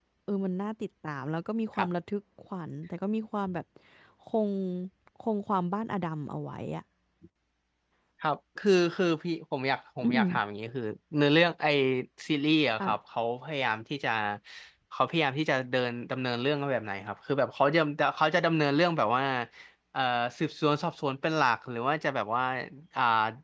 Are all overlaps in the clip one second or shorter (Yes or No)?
Yes